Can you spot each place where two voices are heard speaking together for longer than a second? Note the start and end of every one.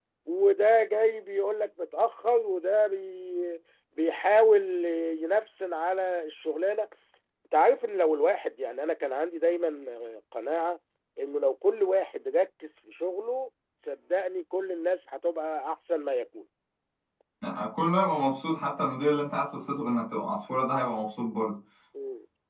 none

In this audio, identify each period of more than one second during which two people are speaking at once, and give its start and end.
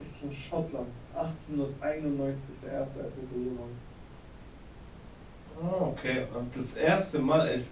none

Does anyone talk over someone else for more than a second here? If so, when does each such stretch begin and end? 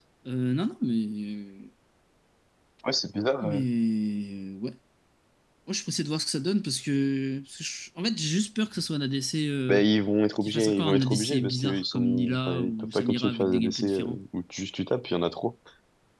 10.4-14.2

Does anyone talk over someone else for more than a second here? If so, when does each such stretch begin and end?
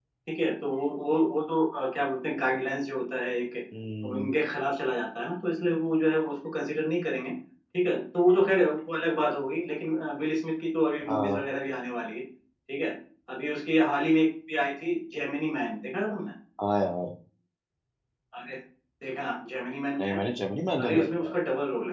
none

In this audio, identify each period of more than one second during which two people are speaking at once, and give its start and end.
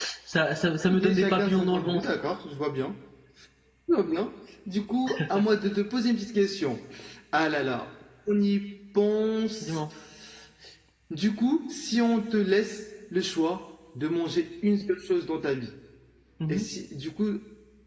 0.9-2.1

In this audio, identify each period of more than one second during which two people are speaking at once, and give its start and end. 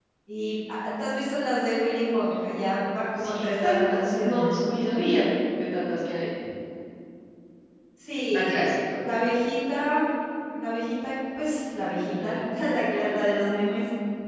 3.2-4.7

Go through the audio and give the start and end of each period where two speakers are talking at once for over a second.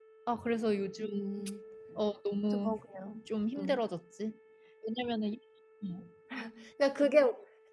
none

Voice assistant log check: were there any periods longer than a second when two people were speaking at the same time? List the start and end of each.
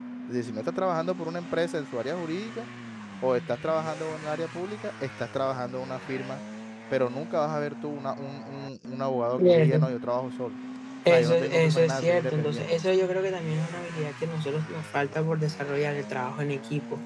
11.1-12.7

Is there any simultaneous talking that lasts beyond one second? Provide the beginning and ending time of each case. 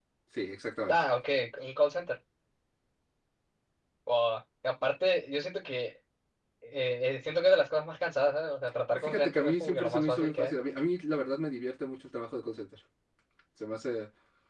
8.9-10.5

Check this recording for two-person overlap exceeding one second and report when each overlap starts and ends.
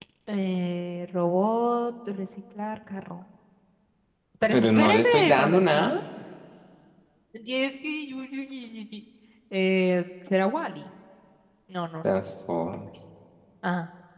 4.5-5.9

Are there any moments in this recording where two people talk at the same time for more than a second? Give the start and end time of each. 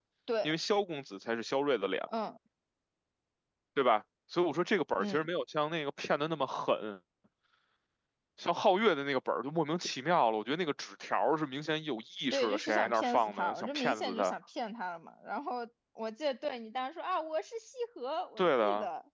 12.3-14.3

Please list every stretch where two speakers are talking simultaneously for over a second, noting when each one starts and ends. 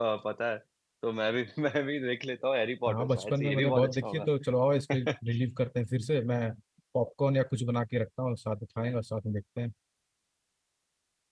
2.9-4.3

